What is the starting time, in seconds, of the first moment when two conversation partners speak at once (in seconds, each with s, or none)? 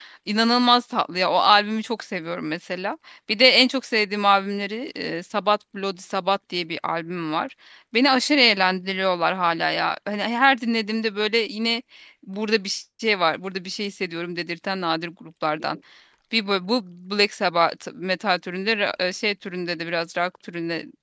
none